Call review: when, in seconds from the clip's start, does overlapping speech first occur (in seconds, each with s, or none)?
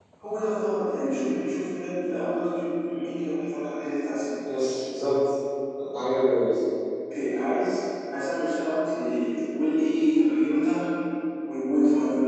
none